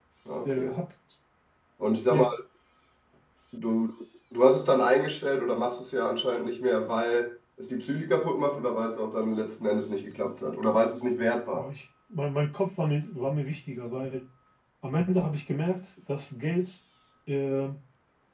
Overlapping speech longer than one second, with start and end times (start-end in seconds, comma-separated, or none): none